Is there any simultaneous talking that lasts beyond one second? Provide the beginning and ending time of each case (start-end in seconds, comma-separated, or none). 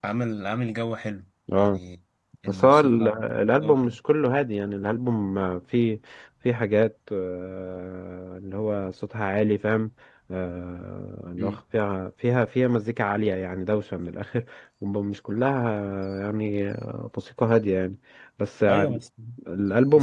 2.5-4.0